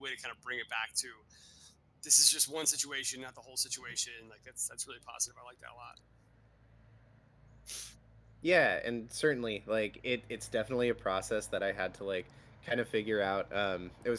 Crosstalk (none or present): none